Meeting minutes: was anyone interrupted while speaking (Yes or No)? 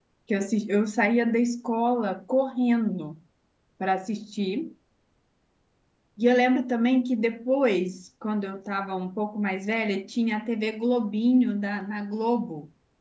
No